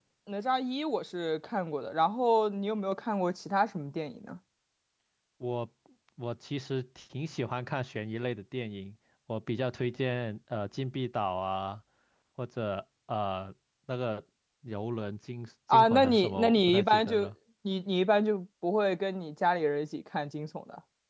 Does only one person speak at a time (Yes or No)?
No